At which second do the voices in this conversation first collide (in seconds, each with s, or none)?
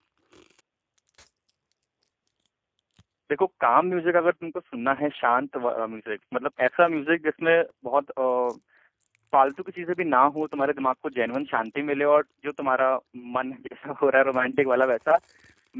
none